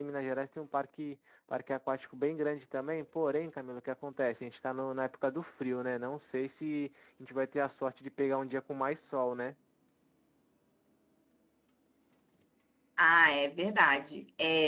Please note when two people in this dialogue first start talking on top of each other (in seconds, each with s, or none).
none